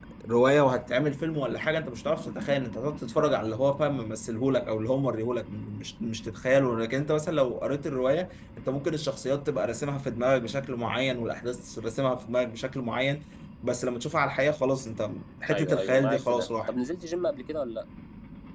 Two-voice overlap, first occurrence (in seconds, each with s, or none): 15.5 s